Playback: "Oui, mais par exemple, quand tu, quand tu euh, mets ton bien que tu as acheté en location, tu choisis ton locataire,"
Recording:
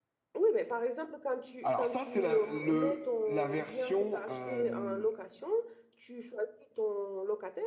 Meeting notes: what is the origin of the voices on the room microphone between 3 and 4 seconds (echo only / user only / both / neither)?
both